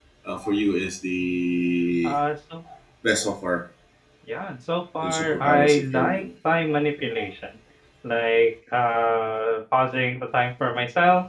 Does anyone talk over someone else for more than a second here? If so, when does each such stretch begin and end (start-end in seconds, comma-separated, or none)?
5.0-6.2